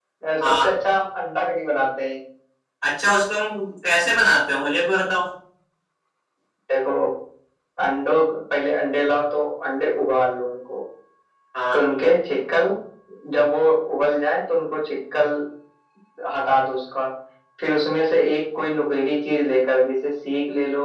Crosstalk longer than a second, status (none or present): none